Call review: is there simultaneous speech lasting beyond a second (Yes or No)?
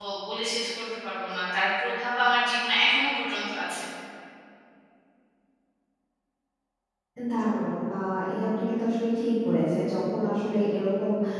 No